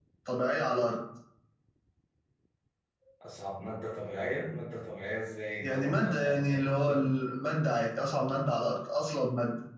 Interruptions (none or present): present